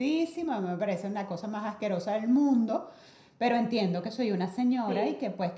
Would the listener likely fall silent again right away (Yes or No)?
Yes